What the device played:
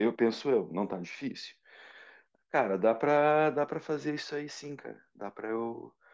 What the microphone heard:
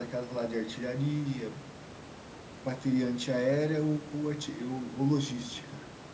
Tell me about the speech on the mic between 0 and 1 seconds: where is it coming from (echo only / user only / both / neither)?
user only